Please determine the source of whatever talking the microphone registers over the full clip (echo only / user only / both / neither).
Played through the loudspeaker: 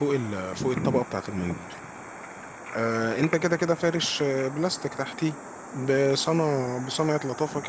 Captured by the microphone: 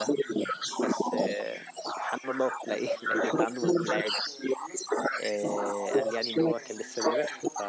both